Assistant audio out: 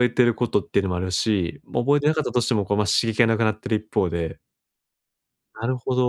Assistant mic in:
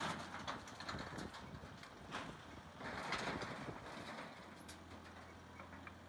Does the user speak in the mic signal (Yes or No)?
No